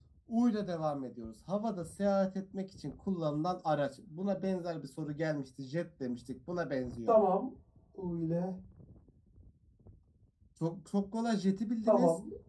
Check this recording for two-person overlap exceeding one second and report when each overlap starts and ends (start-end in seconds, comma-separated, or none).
none